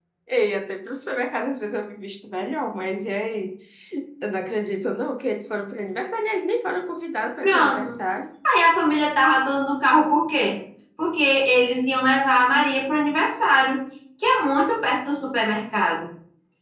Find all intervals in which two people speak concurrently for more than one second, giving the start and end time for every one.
none

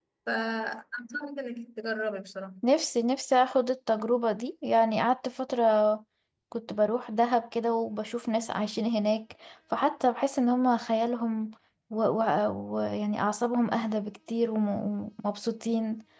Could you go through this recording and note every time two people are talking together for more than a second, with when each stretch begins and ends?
none

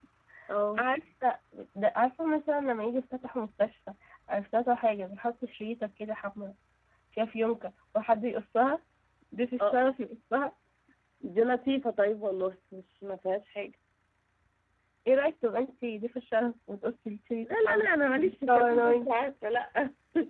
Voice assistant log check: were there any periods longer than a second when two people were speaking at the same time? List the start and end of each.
17.4-19.1

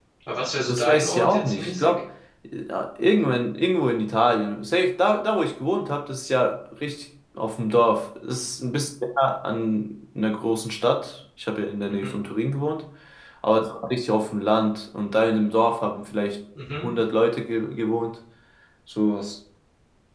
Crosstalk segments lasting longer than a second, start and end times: 0.6-1.9

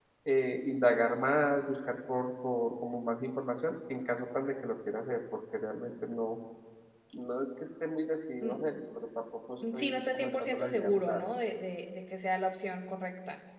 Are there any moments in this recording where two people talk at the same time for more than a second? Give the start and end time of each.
9.7-11.2

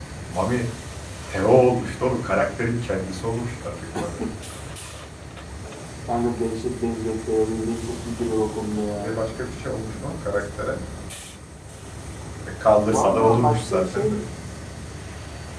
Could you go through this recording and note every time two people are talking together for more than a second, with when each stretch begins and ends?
12.9-14.2

